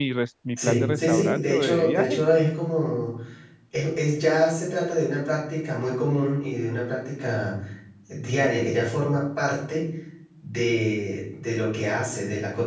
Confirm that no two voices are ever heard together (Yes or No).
No